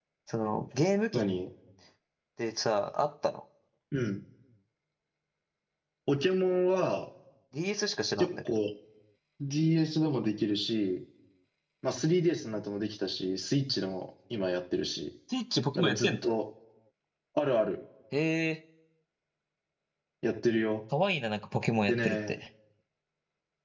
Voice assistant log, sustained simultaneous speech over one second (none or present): none